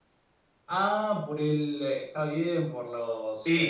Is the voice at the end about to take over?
No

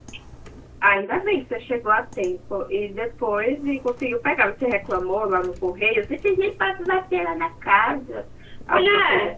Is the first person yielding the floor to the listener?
Yes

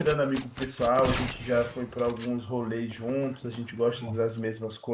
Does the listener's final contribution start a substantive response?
No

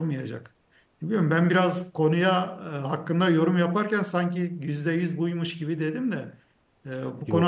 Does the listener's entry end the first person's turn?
No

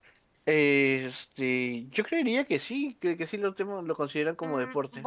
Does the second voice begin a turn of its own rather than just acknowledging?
Yes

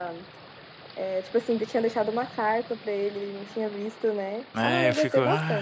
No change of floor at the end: No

